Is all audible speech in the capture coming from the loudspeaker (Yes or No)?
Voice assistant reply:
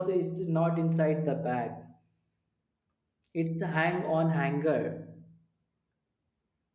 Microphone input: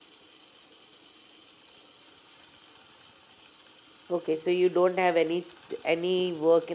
No